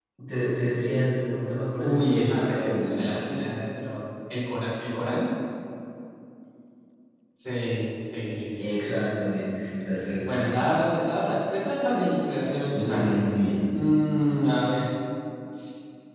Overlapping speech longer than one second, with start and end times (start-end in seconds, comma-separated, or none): 1.8-3.3